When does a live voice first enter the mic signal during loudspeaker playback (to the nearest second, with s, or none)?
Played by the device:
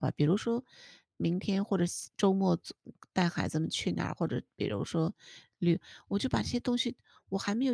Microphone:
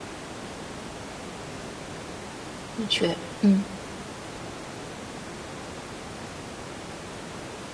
3 s